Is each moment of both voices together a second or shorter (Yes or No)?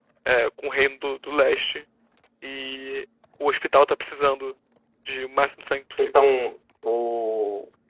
Yes